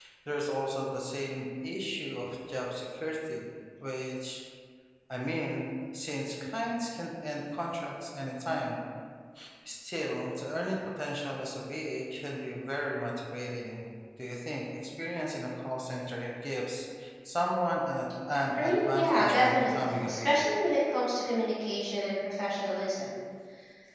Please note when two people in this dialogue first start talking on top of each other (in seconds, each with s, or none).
18.6 s